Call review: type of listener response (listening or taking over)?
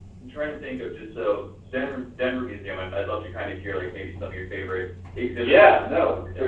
taking over